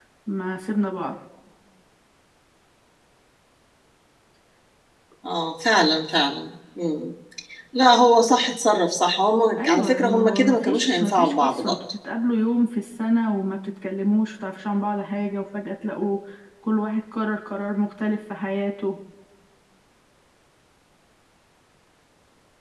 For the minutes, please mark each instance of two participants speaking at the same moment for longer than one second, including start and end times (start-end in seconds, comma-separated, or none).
9.6-11.8